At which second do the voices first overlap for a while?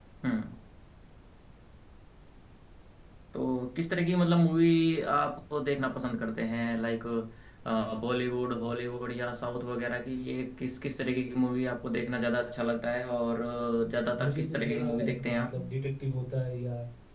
14.2 s

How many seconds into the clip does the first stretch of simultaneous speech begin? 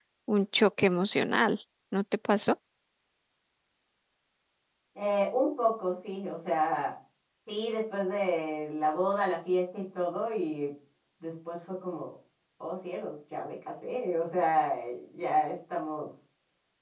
none

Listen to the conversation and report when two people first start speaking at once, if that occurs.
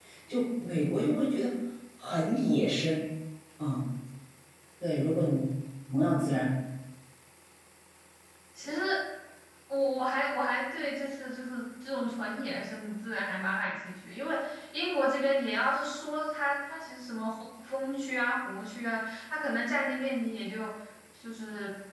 none

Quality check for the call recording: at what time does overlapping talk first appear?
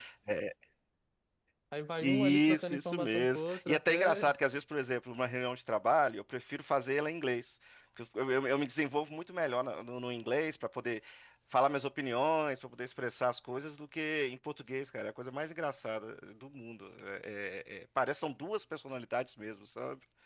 2.0 s

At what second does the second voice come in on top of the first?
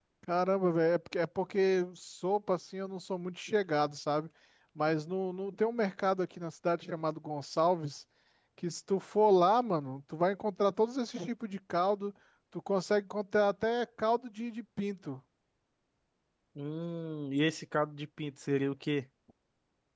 none

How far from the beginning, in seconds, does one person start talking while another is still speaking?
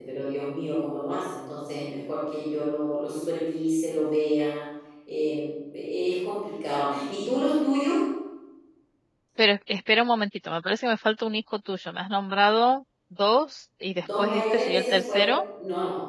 14.0 s

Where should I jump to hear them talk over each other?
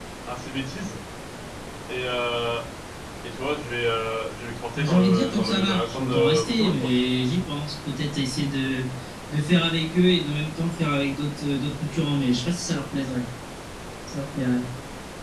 4.7 s

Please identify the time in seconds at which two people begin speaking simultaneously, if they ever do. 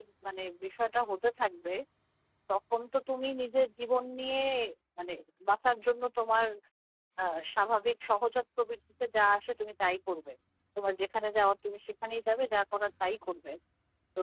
none

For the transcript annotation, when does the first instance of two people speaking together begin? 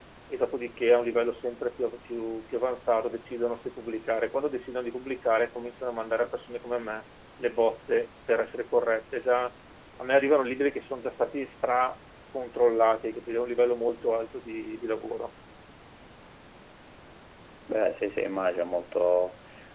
none

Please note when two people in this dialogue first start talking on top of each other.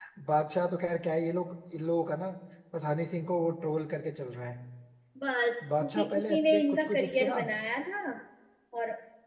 5.8 s

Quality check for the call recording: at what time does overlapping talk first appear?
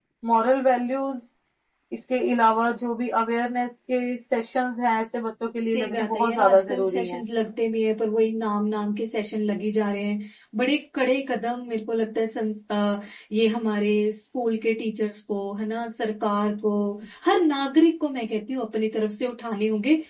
5.7 s

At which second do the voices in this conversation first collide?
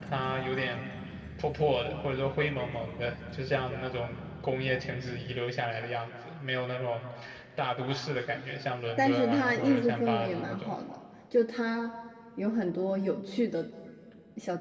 9.0 s

